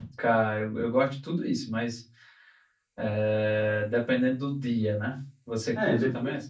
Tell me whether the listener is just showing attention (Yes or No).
No